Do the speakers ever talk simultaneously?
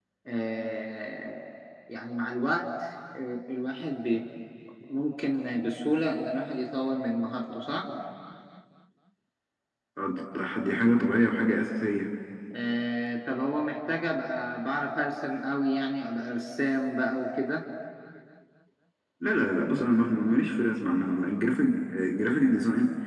No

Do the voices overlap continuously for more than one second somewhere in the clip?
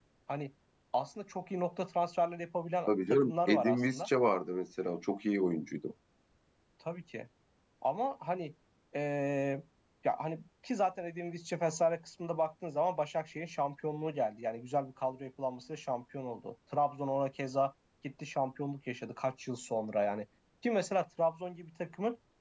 Yes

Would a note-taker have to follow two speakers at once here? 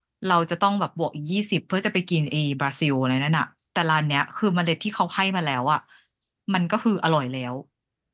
No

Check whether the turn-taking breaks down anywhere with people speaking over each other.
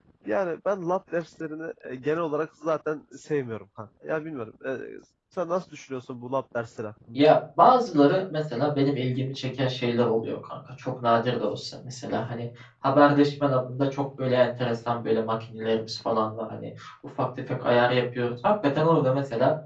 No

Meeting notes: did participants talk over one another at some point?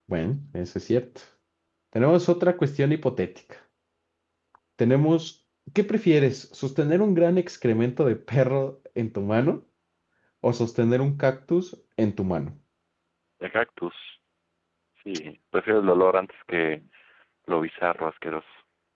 No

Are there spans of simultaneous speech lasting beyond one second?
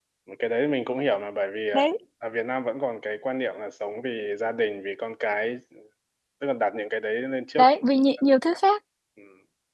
No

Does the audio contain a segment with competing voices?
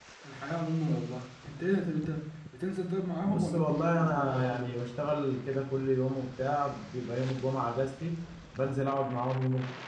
Yes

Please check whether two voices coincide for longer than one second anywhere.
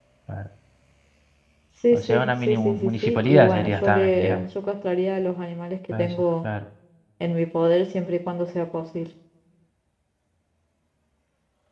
Yes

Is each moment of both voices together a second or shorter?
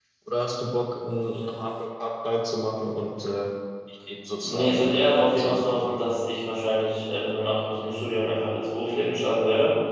No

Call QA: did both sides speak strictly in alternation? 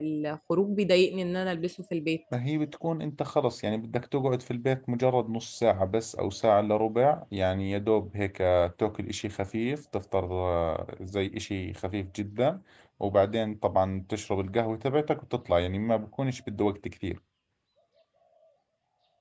Yes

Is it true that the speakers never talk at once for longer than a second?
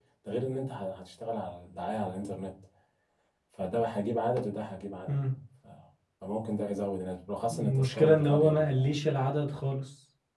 No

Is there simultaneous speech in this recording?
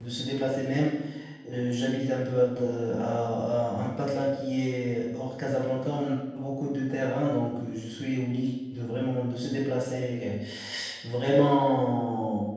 No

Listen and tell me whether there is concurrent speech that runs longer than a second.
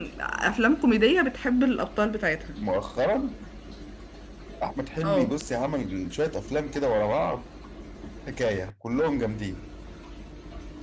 No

